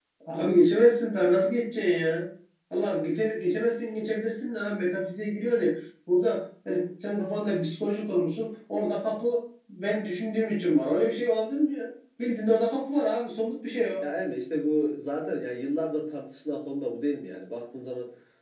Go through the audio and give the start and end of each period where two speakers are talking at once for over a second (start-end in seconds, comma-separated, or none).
none